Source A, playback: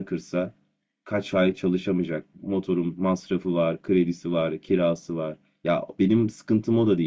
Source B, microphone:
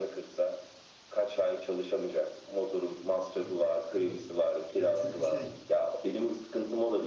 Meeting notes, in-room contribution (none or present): present